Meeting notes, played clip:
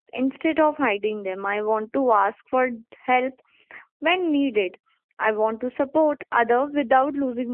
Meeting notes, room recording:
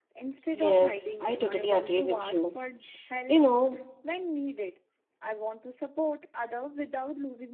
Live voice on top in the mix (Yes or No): Yes